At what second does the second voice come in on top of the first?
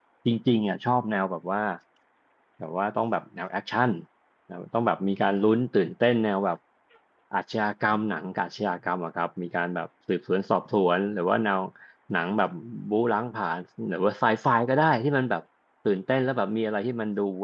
none

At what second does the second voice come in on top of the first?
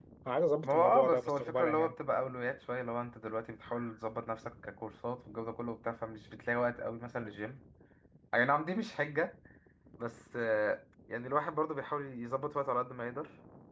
0.6 s

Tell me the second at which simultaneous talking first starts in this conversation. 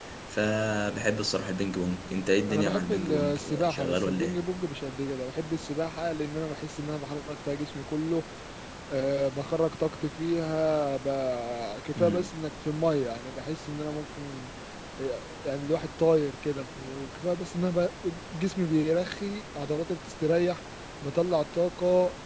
2.5 s

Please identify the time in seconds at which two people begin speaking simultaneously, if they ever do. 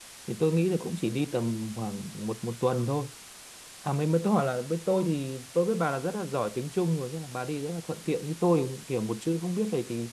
none

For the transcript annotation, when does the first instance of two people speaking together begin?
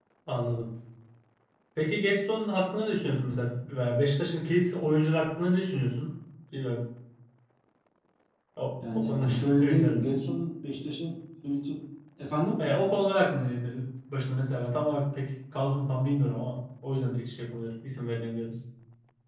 9.0 s

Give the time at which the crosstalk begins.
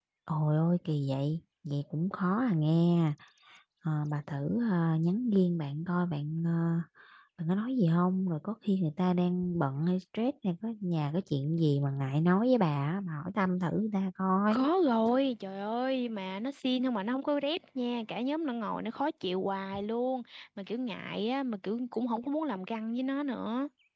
none

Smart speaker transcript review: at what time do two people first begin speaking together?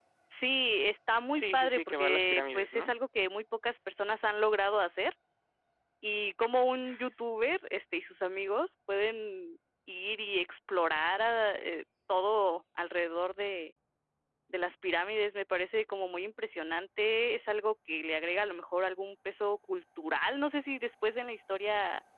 1.3 s

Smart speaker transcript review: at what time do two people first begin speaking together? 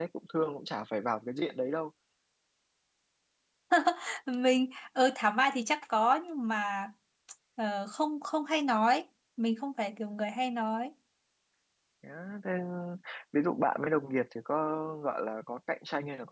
none

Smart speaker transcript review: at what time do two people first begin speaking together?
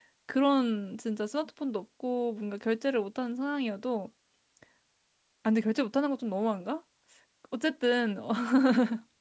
none

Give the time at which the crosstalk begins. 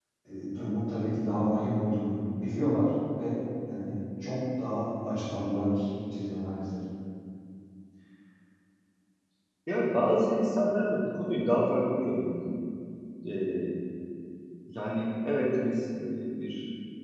none

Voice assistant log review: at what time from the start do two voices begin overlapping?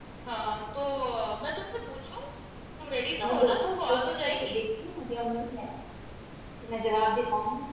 3.2 s

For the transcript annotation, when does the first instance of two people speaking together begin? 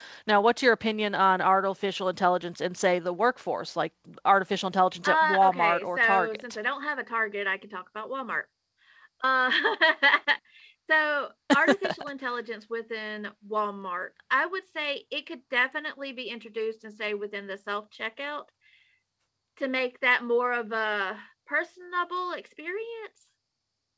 5.0 s

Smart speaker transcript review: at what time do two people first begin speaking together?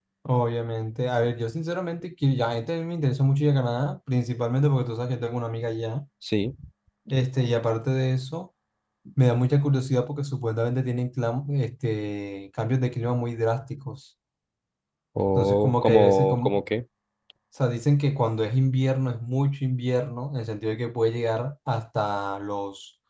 15.3 s

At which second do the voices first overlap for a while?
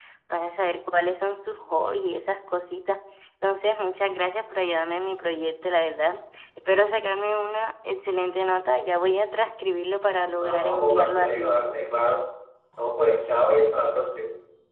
10.4 s

